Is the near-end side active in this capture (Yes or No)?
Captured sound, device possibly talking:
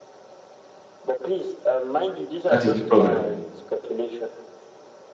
Yes